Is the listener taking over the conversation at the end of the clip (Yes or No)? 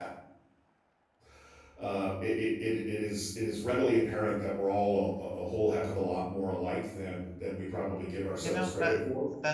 Yes